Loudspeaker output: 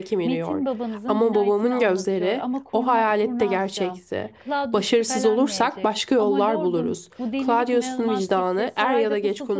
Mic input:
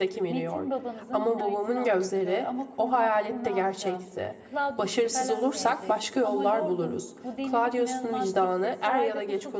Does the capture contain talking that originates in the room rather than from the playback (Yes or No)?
No